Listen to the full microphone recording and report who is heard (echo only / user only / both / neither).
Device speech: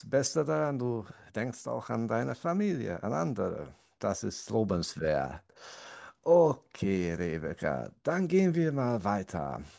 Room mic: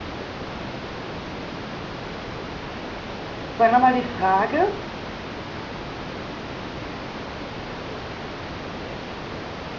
user only